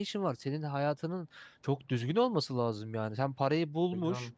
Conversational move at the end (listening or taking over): listening